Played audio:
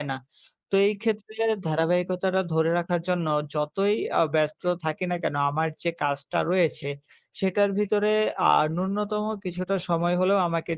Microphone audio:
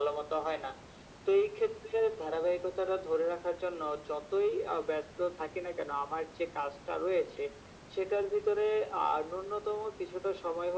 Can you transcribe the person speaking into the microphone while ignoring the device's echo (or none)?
none